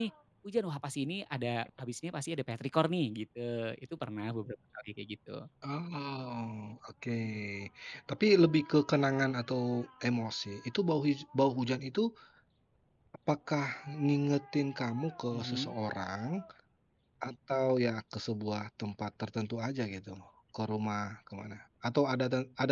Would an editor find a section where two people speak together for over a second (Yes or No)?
No